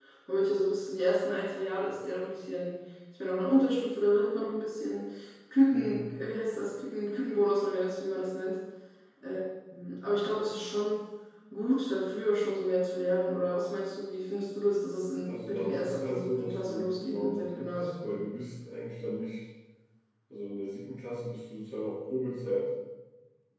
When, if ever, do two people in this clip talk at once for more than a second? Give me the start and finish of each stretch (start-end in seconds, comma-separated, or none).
15.2-18.0